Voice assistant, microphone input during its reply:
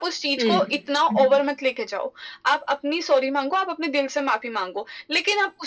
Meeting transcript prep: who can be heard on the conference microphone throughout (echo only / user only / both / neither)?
both